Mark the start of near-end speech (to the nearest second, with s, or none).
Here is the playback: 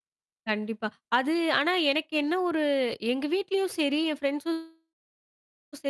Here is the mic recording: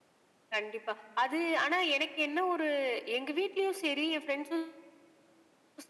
none